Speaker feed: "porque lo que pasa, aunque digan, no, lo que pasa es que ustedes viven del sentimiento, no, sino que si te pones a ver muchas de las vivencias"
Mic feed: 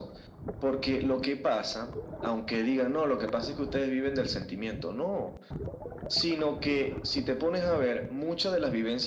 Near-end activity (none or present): none